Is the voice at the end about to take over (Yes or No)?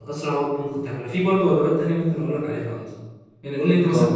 No